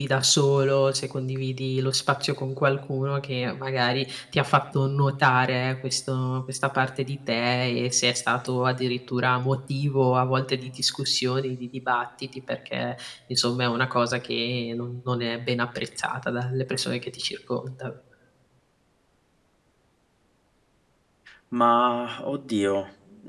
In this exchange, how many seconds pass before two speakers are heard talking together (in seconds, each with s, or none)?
none